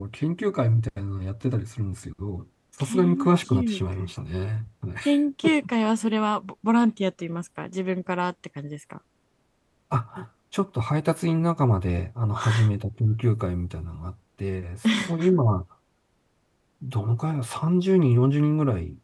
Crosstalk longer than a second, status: present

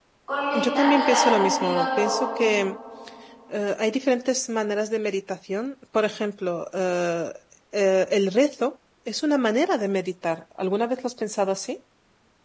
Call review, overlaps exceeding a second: present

